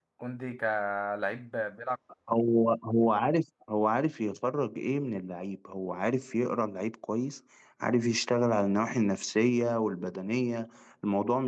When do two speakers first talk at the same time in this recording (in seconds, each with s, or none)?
none